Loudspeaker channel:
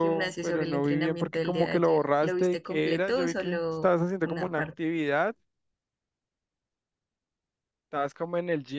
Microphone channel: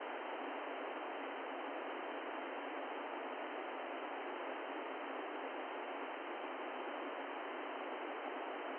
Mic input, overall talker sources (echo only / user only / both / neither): neither